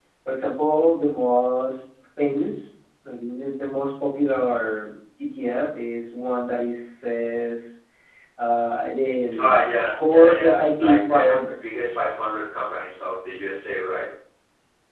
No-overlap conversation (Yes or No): No